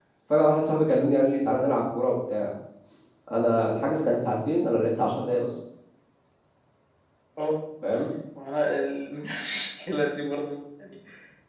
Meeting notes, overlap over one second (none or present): none